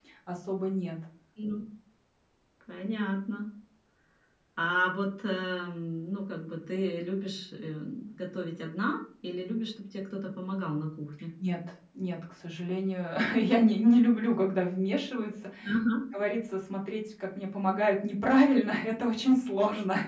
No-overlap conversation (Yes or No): Yes